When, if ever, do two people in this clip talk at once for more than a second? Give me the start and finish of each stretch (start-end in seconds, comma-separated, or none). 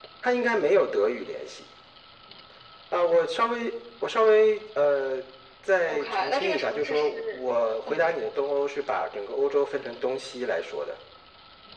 5.9-7.4